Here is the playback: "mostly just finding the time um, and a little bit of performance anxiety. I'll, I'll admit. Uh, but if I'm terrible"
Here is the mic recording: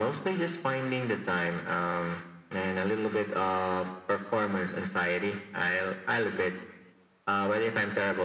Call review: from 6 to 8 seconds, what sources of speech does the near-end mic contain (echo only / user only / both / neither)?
echo only